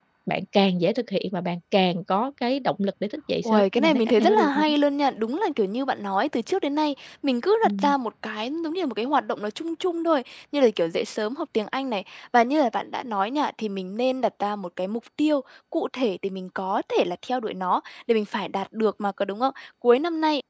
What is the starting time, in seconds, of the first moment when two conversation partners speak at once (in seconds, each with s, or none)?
3.4 s